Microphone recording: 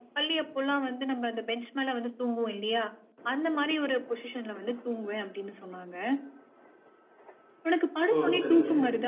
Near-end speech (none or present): present